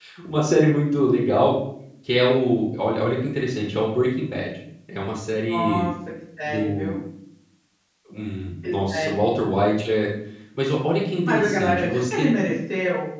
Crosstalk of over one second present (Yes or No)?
Yes